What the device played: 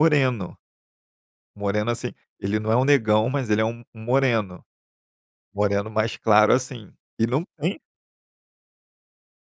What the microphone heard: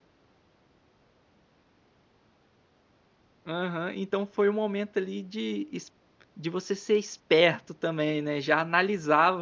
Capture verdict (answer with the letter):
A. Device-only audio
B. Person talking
B